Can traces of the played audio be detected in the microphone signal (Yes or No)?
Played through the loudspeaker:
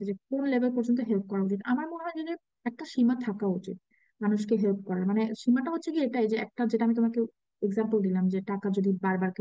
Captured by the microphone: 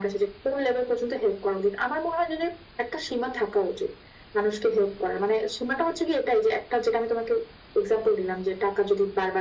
Yes